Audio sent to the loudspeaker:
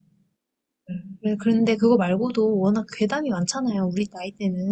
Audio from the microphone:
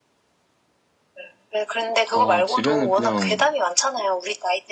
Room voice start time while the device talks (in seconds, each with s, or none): 2.1 s